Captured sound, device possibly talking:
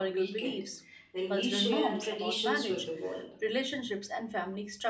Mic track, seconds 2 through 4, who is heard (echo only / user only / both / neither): both